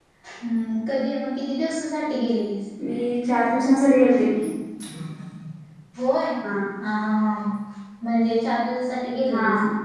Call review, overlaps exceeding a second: none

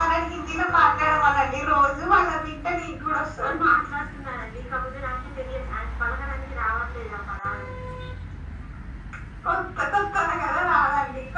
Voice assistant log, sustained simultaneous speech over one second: none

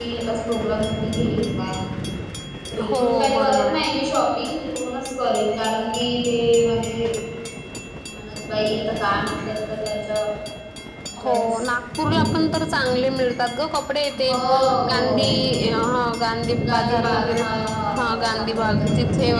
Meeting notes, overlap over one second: present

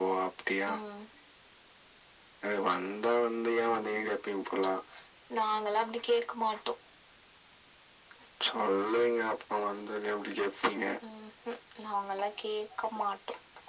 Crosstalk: none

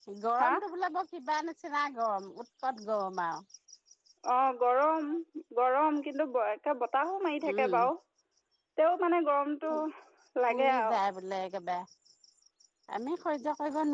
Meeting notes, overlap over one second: none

